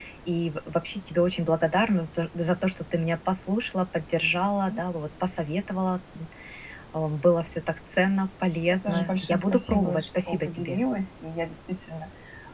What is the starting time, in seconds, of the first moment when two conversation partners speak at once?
9 s

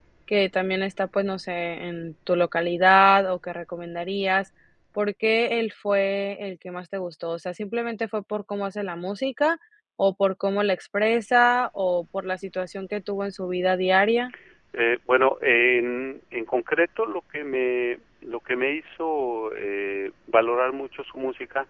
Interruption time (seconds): none

